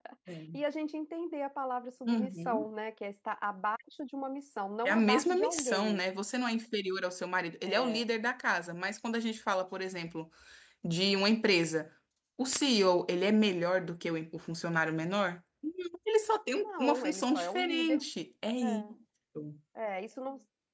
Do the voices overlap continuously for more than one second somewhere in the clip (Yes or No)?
Yes